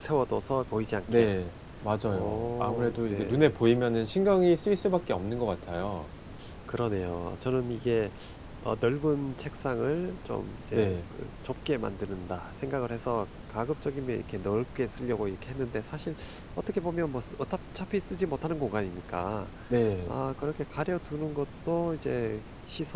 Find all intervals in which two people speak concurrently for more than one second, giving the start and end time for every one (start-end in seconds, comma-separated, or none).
2.0-3.6